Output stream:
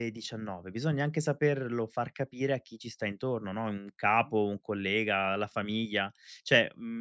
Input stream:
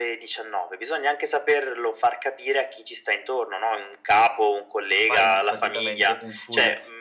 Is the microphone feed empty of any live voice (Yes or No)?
No